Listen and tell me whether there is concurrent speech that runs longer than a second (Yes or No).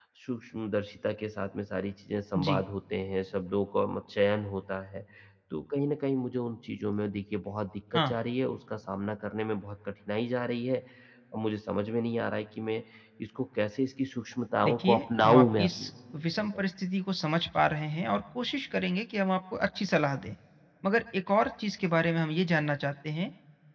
Yes